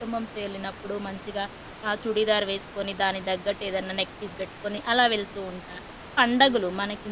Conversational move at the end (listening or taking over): listening